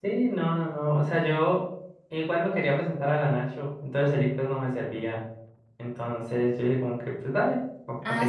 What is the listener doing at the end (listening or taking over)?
taking over